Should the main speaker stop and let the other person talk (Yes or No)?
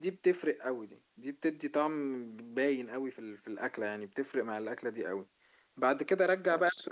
No